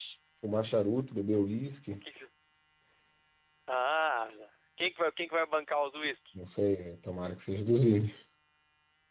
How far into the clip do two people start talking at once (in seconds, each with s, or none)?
none